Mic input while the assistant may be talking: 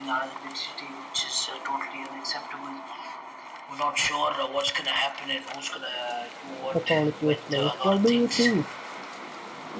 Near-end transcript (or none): the quality of life what do you think